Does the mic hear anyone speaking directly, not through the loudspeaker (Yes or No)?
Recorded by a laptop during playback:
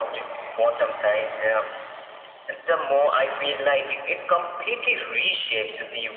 No